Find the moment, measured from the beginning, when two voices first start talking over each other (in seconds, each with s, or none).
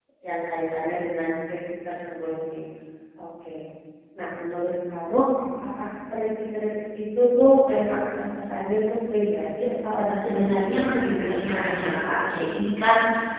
10.2 s